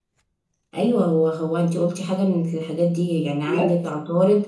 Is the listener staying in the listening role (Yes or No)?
Yes